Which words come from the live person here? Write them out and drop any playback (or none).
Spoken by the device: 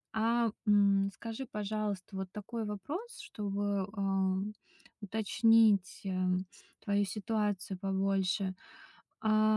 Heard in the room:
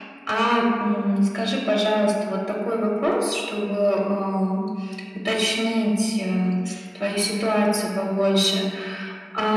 none